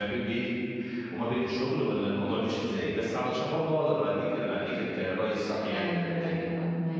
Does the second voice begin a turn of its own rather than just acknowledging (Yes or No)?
Yes